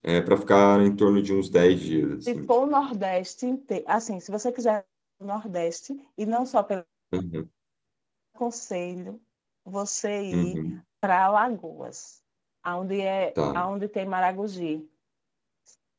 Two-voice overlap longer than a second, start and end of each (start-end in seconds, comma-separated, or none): none